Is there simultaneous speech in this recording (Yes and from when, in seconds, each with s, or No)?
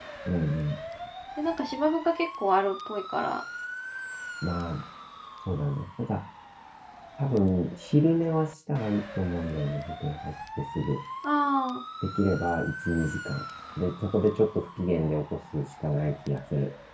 No